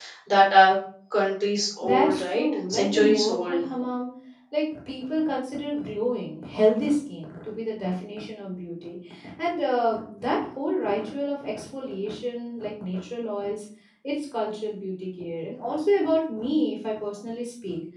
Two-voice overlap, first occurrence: 1.8 s

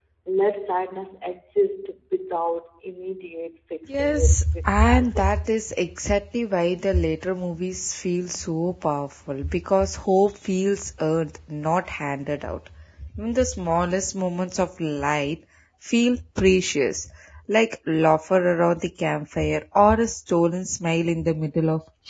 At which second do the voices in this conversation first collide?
3.9 s

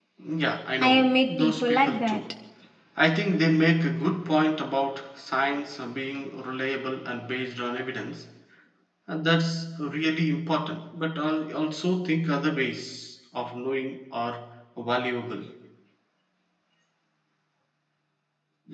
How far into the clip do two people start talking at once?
0.8 s

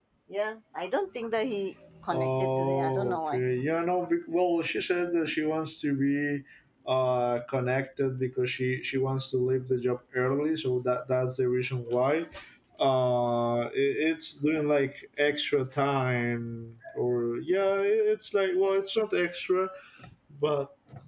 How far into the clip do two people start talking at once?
2.1 s

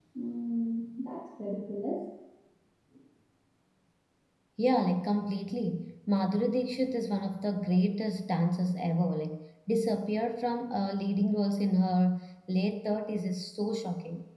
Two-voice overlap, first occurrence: none

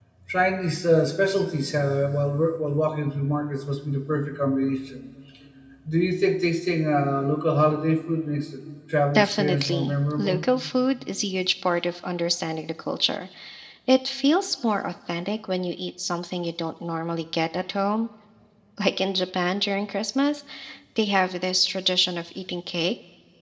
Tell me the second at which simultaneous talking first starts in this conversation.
9.2 s

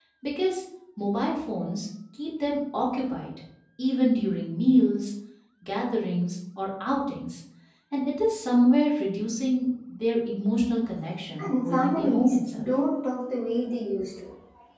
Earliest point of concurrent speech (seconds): 11.4 s

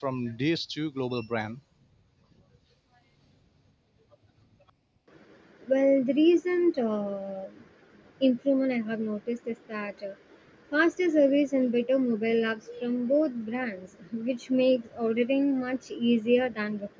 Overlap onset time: none

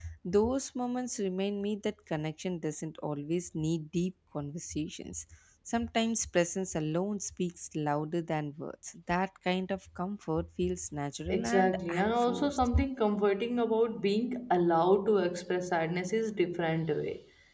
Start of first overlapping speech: 11.3 s

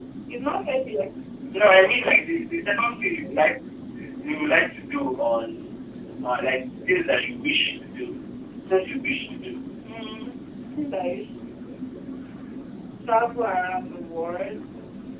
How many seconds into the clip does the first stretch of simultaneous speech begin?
none

